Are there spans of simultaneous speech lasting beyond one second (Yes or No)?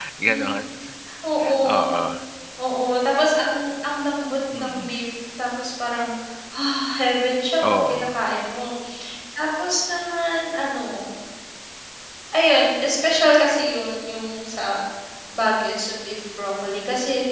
No